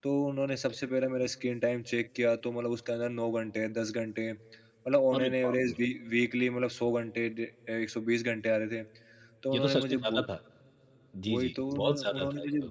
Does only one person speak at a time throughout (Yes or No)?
No